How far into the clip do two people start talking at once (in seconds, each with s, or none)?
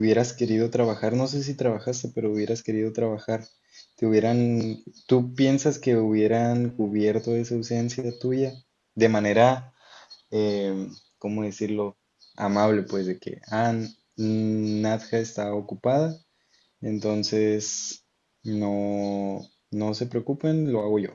none